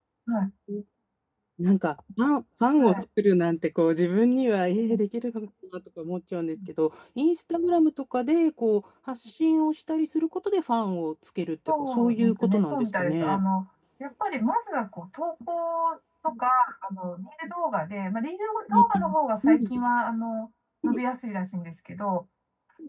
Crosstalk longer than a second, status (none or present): present